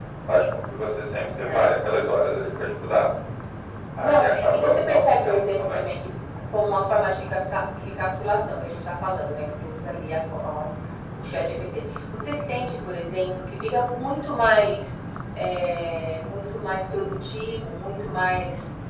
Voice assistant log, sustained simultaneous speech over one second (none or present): present